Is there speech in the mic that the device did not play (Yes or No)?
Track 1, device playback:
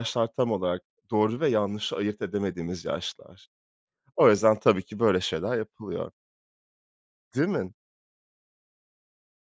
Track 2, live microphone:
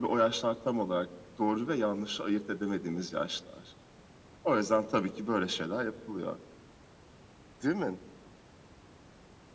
No